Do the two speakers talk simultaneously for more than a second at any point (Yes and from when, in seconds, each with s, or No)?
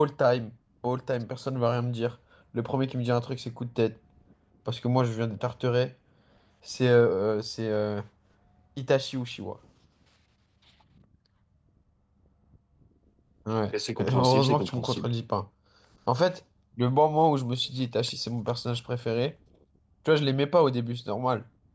Yes, from 13.7 s